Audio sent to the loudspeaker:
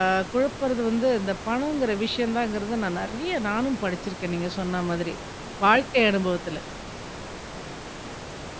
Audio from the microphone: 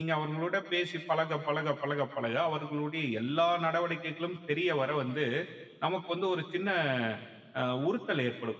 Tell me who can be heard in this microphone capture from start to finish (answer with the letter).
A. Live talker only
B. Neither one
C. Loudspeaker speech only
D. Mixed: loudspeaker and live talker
A